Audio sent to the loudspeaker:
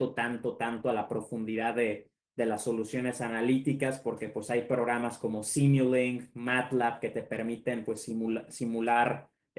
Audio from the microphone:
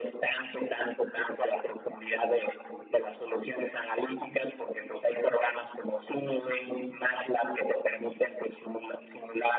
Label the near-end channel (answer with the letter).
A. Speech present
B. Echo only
B